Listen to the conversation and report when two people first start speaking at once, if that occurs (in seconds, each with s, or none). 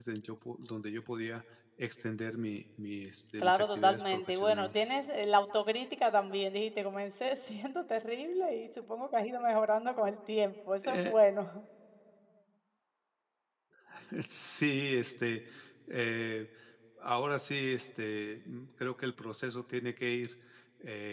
3.4 s